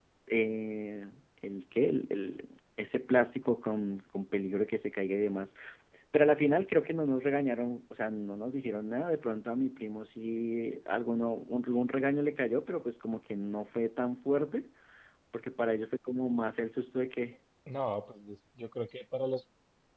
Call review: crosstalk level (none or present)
none